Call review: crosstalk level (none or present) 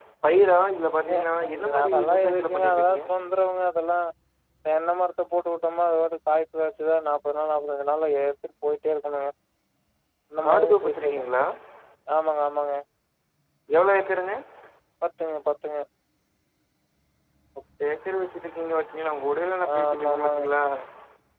present